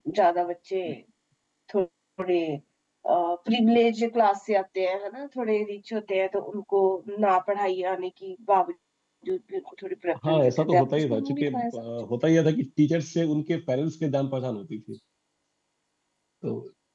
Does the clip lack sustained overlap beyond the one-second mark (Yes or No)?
No